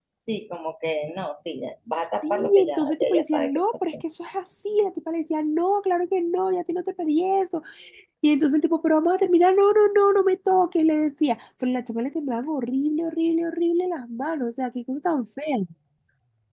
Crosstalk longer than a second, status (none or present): present